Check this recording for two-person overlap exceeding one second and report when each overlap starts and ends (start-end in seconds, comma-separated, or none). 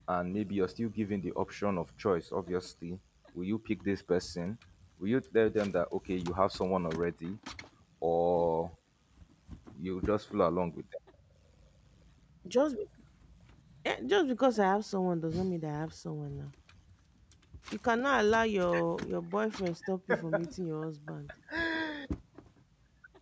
none